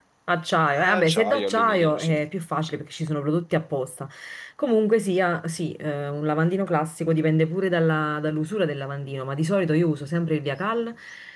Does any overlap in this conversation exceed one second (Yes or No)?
Yes